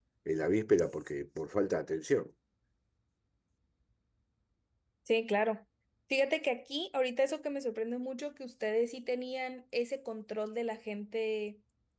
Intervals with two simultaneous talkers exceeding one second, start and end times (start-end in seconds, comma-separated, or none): none